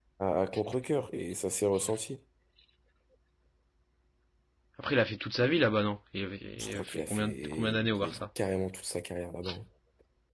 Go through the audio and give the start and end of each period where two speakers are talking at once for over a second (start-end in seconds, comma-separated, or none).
6.6-8.2